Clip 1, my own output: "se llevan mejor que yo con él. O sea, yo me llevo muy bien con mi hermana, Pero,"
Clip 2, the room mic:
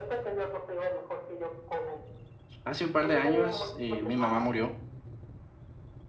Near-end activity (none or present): present